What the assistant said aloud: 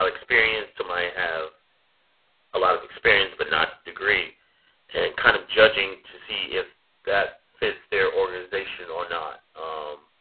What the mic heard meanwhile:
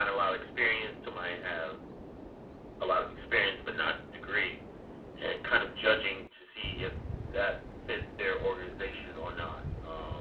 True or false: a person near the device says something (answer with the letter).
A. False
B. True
A